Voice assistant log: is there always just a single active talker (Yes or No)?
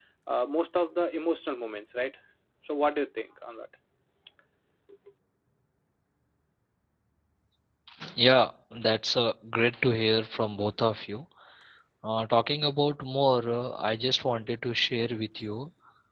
Yes